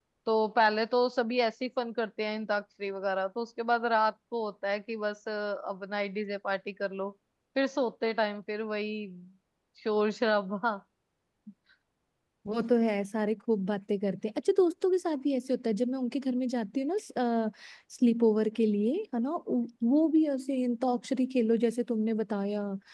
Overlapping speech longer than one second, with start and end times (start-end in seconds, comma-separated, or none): none